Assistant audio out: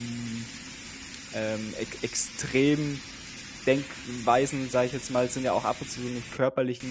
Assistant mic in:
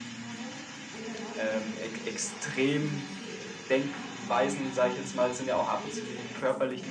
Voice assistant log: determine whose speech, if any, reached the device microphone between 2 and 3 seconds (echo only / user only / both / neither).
both